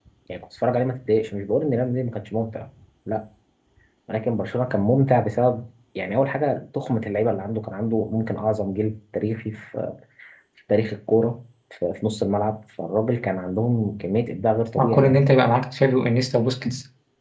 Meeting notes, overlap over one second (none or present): none